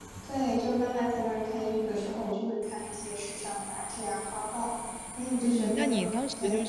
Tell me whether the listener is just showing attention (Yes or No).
No